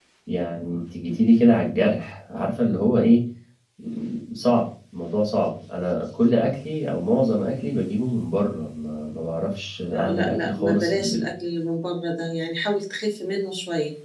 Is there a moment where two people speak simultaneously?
Yes, from 9.9 s

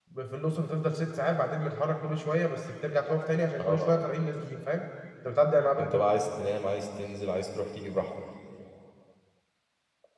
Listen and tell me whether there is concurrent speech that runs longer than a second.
No

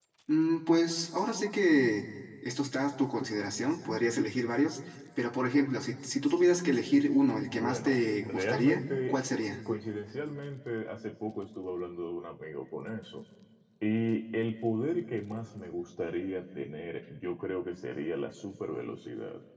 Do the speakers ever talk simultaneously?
Yes, from 7.5 s

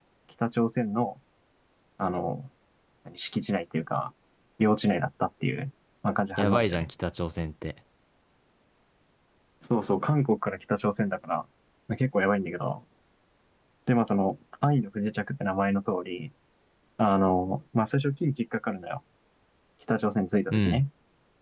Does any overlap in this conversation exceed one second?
No

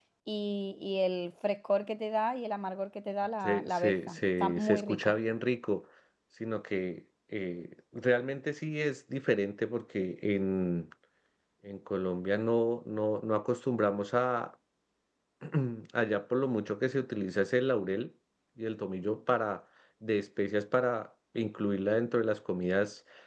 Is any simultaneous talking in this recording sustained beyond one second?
Yes, from 3.4 s

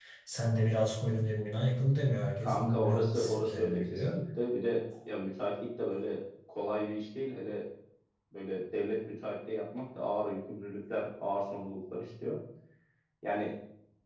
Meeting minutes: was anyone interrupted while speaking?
Yes, from 2.4 s

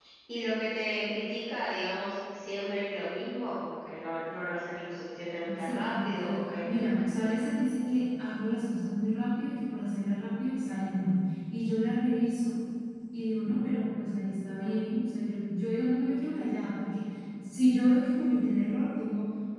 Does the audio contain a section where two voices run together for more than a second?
Yes, from 5.6 s

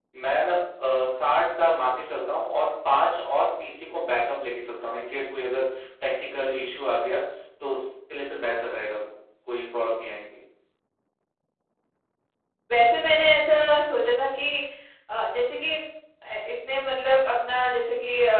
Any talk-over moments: No

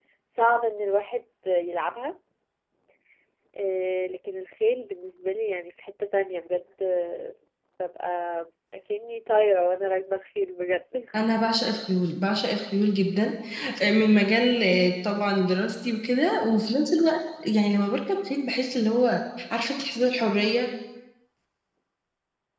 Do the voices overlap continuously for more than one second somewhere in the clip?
No

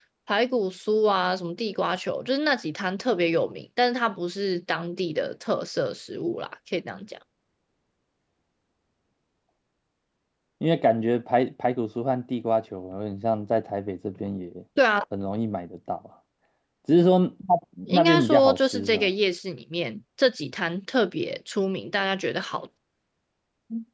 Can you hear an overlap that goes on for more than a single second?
Yes, from 17.9 s

